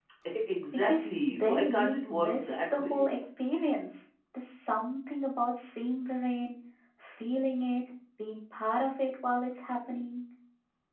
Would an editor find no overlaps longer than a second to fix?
No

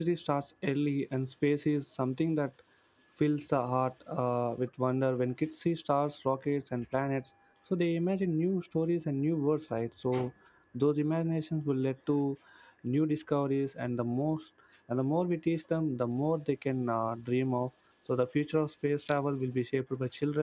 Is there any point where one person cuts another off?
No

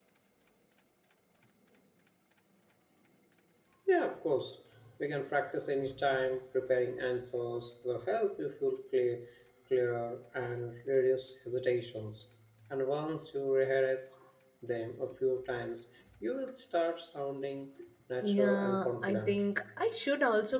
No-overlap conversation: No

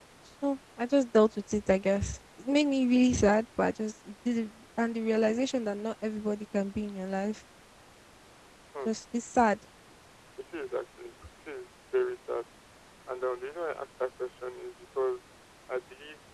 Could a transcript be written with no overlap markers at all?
Yes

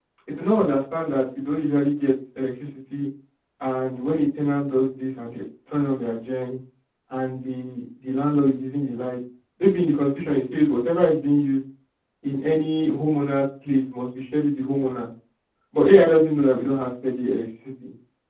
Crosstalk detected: No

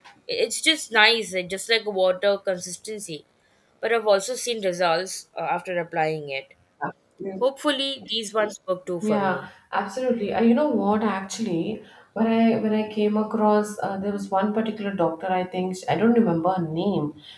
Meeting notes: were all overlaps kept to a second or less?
Yes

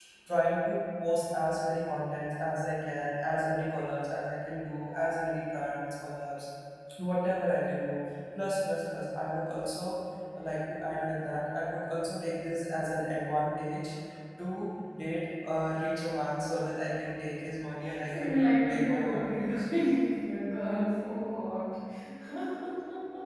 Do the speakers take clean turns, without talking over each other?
No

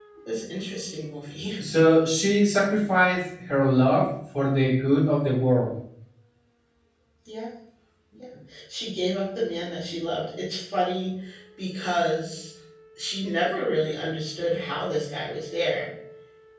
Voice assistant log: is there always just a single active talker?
Yes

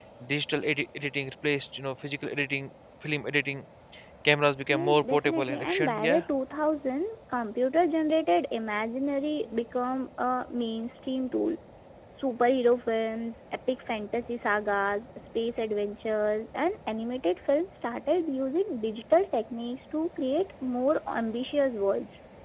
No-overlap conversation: No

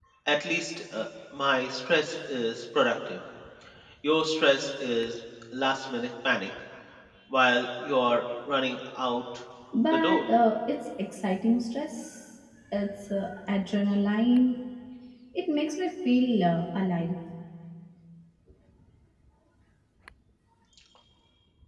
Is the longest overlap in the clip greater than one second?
No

